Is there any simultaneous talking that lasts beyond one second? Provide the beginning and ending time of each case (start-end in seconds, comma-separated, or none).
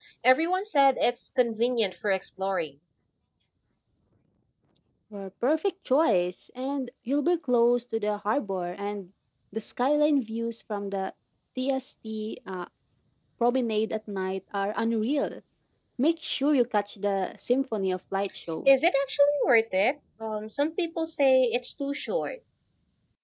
none